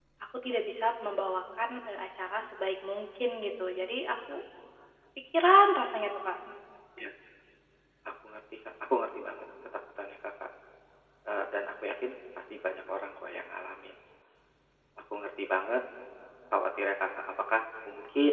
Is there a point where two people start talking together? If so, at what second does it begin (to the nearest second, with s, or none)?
none